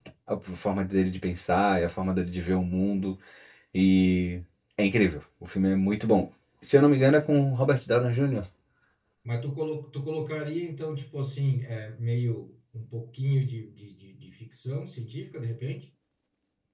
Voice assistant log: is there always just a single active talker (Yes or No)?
Yes